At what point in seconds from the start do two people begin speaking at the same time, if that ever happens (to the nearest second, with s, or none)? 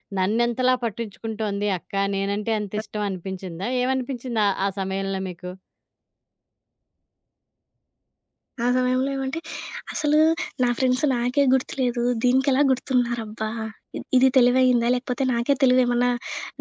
none